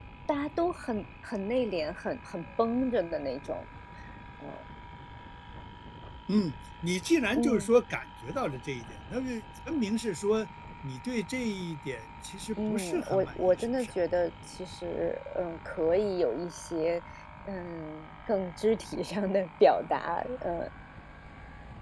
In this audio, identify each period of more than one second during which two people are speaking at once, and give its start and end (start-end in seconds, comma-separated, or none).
12.7-13.9